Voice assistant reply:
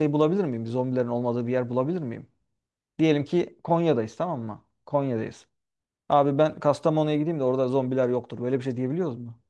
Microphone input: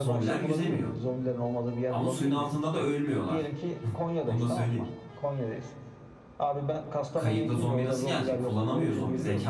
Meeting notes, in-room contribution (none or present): present